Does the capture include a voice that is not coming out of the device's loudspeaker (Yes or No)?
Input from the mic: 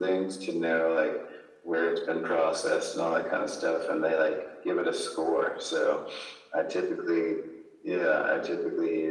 No